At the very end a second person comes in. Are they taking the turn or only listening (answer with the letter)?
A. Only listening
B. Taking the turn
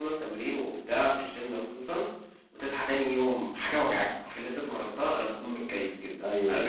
B